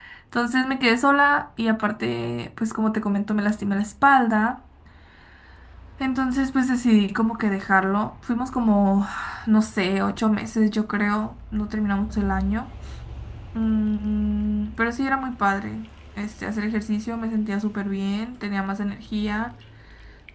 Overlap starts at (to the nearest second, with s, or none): none